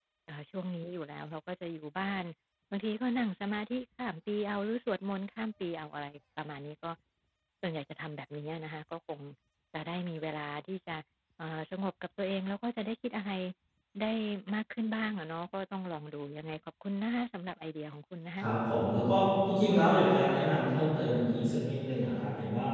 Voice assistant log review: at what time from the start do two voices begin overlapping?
none

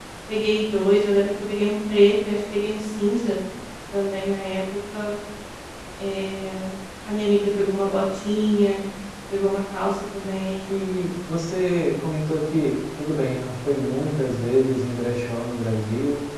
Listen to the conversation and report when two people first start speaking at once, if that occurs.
none

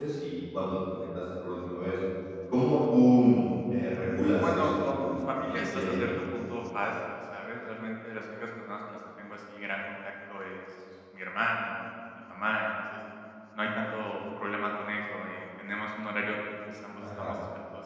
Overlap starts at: 4 s

